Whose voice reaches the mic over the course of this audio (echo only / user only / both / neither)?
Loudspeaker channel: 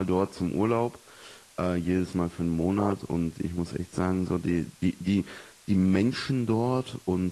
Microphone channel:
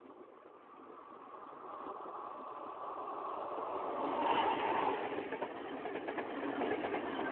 neither